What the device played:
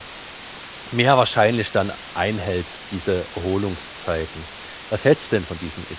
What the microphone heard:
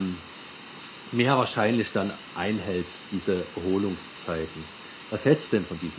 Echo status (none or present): present